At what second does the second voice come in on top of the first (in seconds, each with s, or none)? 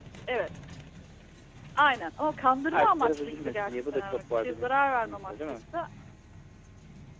2.7 s